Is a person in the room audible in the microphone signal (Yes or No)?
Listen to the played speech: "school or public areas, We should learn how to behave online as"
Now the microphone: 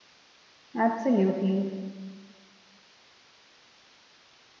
Yes